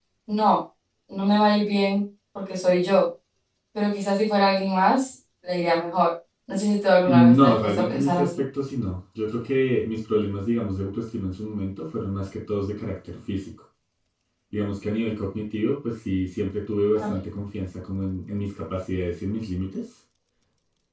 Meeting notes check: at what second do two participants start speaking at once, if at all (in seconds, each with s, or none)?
7.1 s